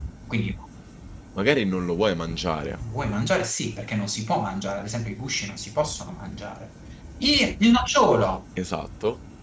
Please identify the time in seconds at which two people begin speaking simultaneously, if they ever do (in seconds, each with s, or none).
none